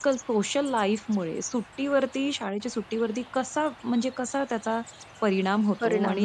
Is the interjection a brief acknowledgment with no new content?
Yes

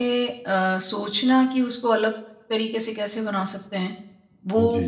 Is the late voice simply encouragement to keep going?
Yes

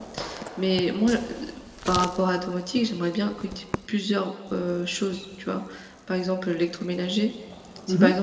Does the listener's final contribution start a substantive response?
No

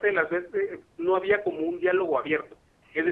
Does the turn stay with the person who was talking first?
No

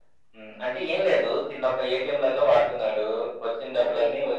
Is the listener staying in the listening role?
Yes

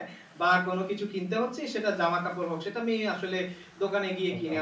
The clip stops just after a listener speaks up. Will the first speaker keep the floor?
Yes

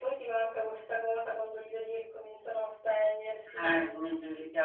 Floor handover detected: Yes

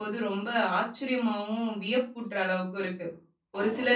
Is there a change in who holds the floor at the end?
No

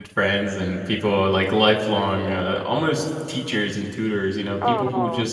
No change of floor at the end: Yes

